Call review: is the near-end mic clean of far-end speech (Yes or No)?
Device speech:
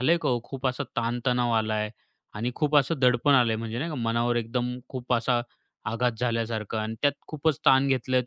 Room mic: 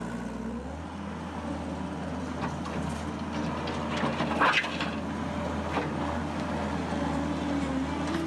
Yes